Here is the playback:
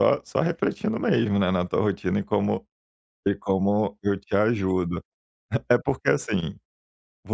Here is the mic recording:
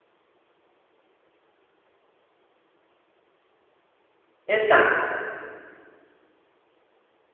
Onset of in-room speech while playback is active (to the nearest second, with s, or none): 4 s